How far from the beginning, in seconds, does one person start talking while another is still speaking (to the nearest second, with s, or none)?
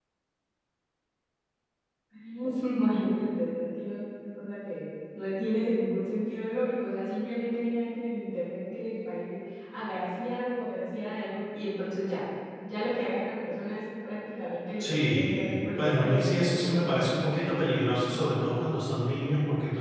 15 s